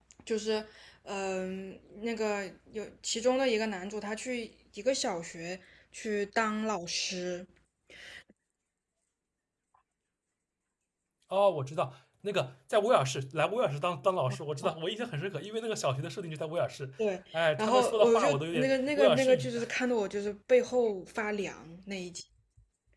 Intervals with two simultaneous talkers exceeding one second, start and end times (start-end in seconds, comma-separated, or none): 17.3-19.5